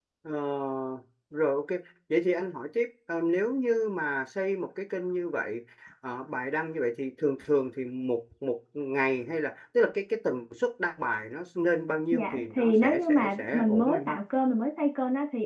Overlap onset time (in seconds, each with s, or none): 12.1 s